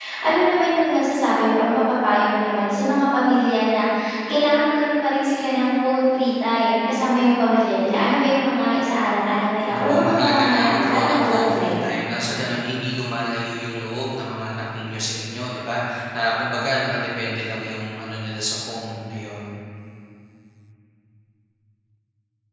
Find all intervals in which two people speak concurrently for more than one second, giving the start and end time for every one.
9.7-11.9

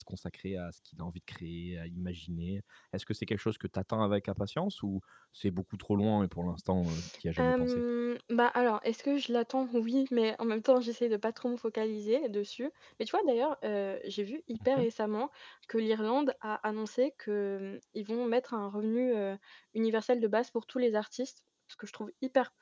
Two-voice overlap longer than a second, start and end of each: none

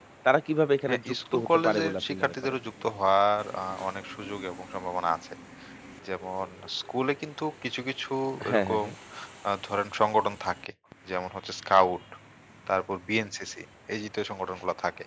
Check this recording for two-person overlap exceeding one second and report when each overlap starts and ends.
0.9-2.6

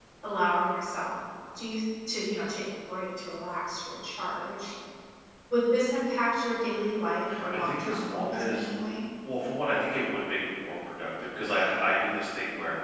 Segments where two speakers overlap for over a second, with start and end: 7.5-8.8

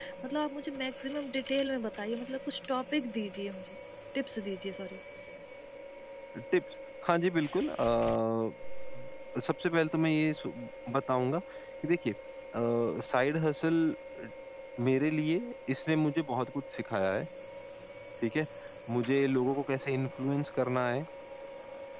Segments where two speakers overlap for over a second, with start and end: none

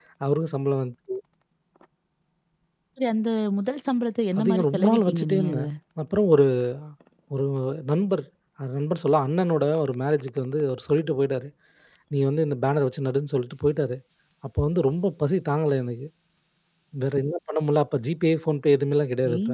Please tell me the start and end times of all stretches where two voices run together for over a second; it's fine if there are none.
4.4-5.6

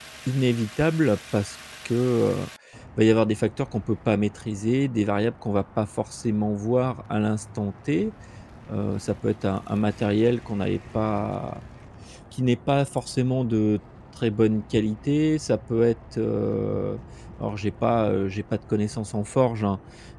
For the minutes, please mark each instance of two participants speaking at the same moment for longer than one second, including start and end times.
none

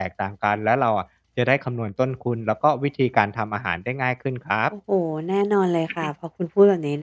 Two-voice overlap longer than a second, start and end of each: none

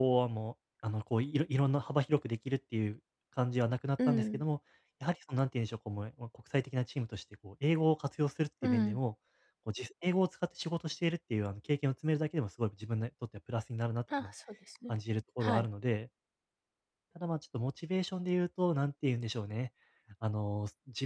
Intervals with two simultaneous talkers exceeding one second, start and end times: none

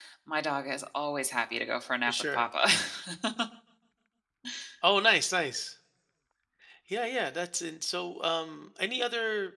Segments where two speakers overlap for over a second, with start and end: none

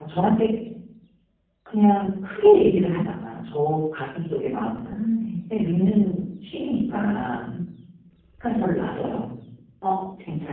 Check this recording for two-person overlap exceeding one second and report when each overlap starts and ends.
none

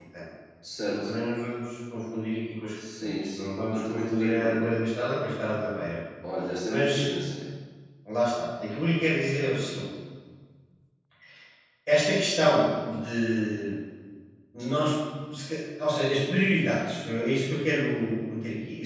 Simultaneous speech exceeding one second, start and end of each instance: 3.0-4.6

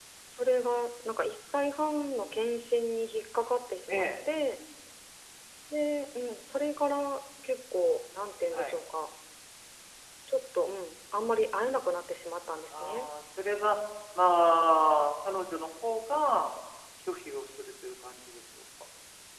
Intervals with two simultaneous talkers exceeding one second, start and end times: none

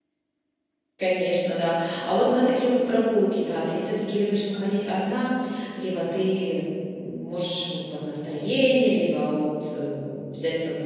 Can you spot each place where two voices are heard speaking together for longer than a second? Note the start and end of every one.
none

